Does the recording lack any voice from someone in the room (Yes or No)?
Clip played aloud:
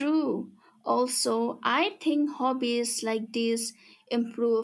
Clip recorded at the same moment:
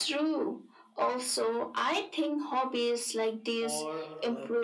No